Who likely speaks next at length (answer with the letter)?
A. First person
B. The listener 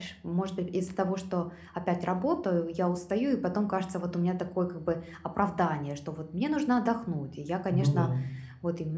A